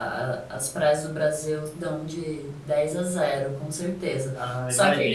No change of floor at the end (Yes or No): Yes